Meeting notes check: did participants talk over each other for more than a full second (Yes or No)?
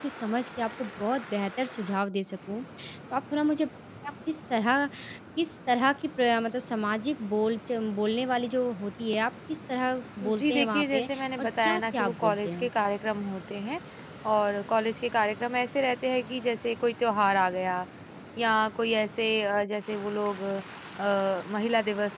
Yes